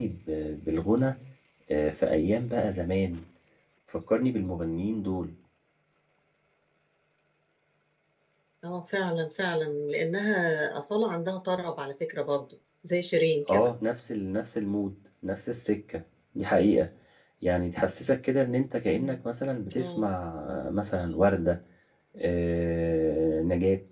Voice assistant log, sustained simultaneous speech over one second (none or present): none